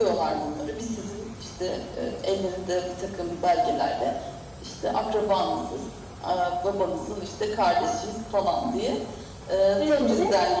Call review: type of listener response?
listening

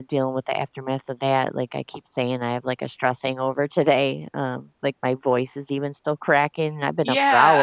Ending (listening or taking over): taking over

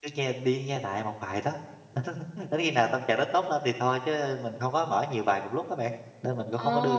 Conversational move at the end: taking over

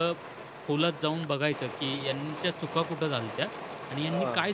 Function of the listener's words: listening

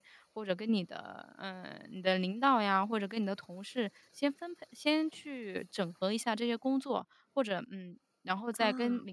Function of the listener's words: listening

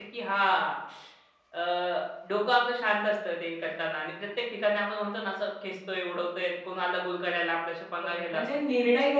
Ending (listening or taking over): taking over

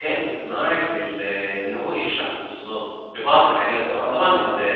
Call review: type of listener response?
taking over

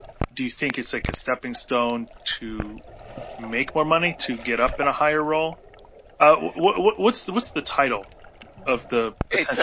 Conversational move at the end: taking over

